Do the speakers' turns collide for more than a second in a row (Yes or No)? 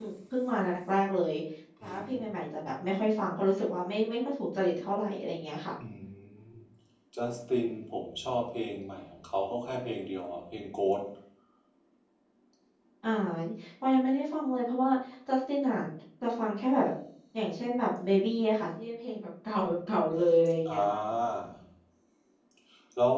No